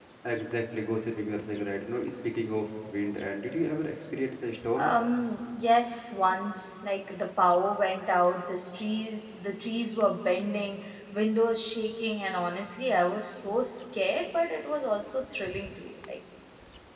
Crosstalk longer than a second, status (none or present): none